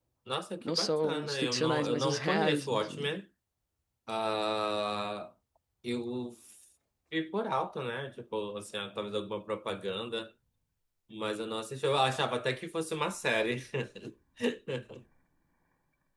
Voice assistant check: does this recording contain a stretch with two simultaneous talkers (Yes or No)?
Yes